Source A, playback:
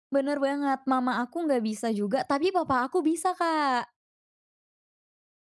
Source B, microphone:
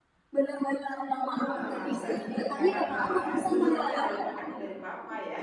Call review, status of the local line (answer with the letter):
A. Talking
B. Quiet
A